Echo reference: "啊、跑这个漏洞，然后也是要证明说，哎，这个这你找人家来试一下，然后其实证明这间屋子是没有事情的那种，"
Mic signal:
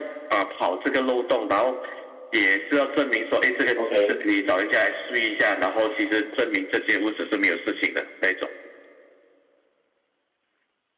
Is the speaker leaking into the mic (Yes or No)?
Yes